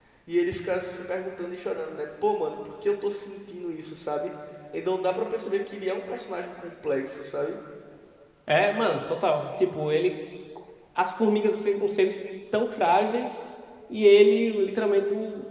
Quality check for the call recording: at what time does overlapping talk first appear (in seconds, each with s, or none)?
none